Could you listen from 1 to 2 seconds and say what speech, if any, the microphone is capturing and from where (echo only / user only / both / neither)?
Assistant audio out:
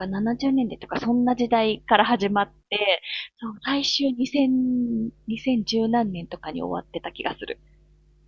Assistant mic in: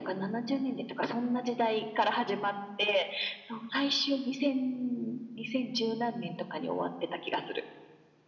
echo only